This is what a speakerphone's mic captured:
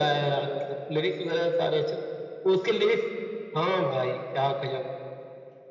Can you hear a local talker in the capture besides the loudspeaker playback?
No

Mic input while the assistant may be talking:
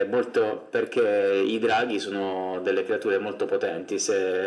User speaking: No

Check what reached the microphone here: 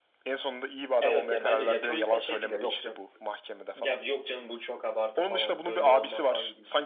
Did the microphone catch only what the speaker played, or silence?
No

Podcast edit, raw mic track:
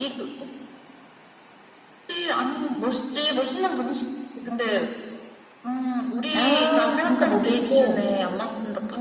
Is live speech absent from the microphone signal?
No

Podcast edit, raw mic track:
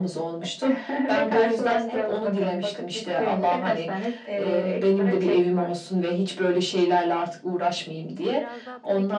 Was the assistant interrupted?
Yes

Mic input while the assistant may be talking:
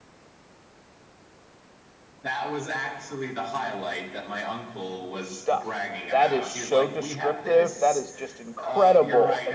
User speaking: Yes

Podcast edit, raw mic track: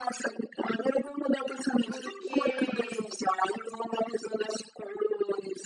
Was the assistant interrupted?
Yes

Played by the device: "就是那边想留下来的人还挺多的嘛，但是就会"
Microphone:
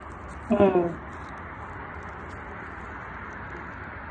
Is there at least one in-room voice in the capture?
Yes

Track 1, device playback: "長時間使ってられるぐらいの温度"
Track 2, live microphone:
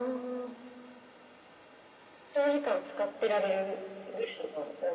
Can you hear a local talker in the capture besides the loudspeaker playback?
No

